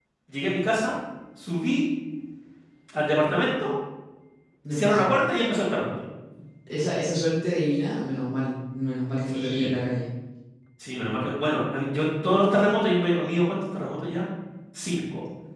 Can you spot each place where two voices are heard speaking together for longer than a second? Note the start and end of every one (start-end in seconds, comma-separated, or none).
none